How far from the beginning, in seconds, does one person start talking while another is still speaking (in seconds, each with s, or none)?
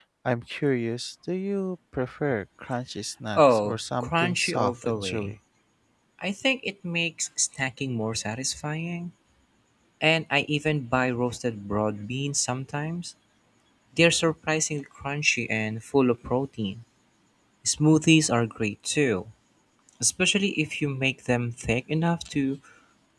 3.4 s